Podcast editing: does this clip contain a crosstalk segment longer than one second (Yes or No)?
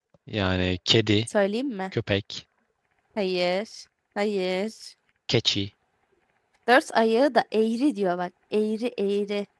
No